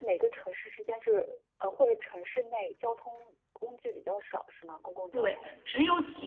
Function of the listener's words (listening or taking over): taking over